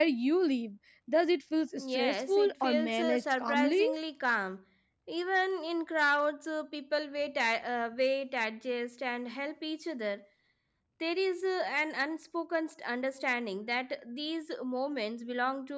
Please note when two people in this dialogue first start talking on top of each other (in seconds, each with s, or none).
1.9 s